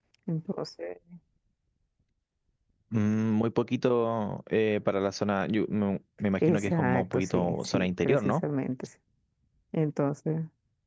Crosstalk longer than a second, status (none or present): present